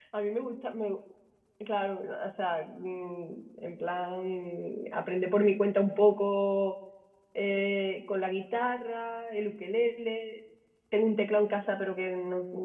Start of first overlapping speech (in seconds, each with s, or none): none